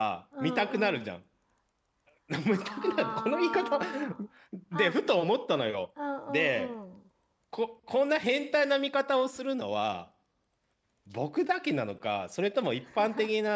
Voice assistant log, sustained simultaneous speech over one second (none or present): present